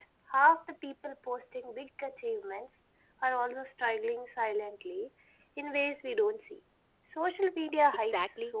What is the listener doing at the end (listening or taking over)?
taking over